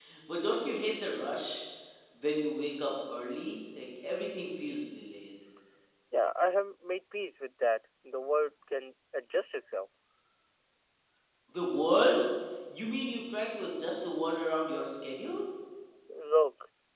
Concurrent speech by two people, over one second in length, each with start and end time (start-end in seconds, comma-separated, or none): none